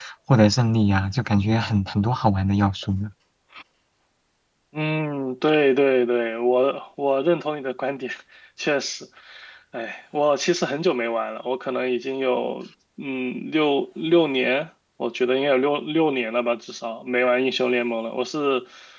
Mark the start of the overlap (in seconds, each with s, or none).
none